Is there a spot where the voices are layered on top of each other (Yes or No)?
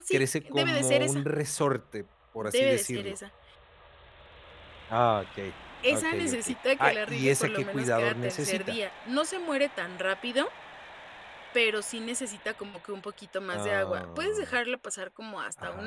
Yes